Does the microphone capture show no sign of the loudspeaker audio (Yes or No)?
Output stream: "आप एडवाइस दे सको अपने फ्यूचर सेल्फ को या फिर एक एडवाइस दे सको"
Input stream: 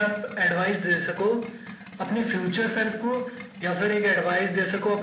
No